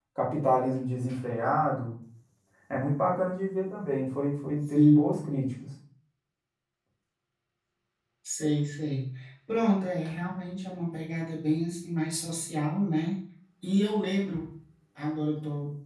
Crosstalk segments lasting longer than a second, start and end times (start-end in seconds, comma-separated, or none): none